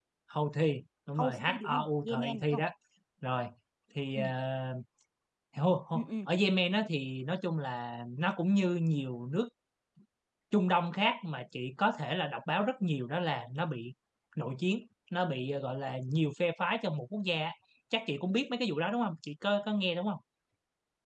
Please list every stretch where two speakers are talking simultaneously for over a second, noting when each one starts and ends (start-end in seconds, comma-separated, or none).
1.2-2.6